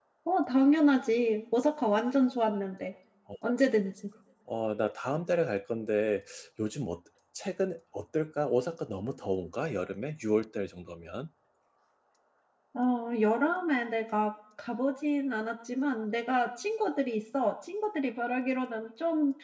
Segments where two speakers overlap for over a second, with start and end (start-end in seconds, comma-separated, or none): none